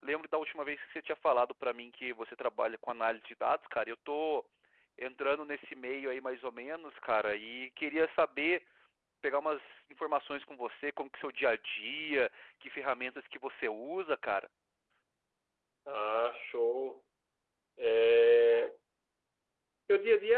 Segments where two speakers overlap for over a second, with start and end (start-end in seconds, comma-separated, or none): none